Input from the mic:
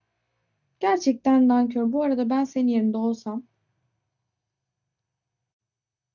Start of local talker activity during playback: 0.8 s

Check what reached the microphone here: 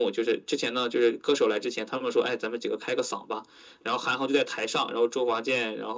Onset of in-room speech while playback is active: none

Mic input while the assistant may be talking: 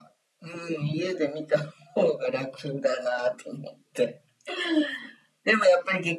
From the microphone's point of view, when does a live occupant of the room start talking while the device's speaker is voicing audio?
none

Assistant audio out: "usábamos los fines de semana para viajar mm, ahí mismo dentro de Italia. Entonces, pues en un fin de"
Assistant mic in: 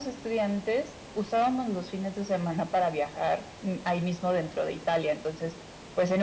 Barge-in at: none

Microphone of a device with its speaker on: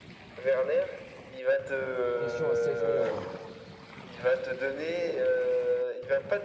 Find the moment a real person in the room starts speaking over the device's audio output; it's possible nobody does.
2.2 s

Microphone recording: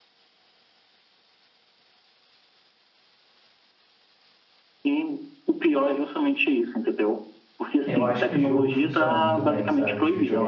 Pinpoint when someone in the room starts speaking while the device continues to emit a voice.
7.8 s

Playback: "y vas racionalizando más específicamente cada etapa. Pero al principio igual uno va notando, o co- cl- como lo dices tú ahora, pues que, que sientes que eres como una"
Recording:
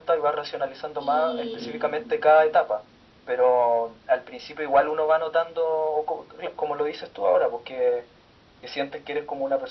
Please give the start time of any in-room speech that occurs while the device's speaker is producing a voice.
1.0 s

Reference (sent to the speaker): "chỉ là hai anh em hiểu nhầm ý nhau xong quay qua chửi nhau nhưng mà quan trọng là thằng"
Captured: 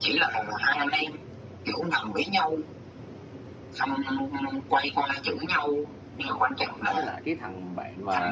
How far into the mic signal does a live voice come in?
6.9 s

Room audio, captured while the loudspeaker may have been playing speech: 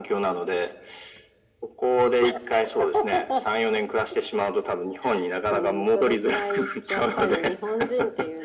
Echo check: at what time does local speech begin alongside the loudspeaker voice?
none

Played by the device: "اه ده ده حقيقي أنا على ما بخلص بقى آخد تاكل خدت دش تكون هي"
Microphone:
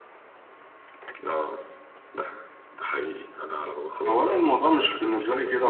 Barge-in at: 4.0 s

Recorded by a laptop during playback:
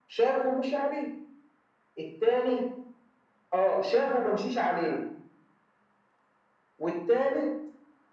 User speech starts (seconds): none

